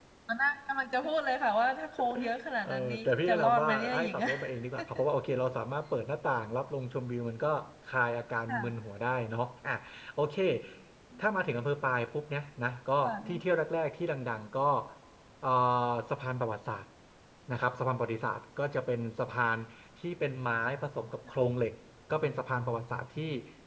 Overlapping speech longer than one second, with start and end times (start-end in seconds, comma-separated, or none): 2.6-4.3